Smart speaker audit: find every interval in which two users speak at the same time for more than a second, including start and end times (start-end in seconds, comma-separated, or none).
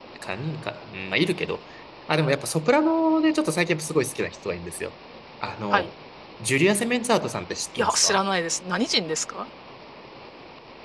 none